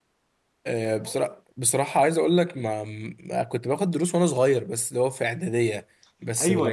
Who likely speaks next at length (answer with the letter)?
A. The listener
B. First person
A